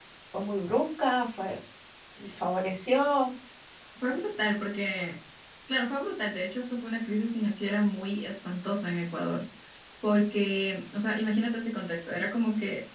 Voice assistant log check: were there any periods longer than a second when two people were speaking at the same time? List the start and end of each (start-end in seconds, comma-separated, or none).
none